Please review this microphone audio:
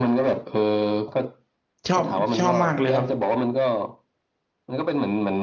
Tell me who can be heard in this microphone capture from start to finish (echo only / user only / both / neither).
both